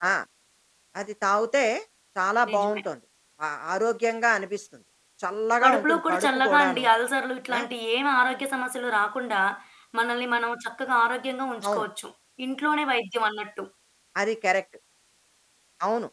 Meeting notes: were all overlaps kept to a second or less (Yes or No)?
No